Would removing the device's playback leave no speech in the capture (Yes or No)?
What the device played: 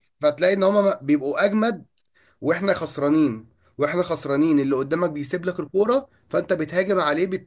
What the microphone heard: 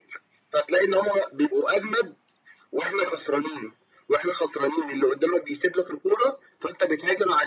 Yes